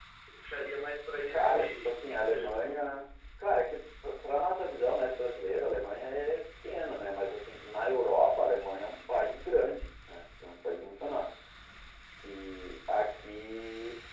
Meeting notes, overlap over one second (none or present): present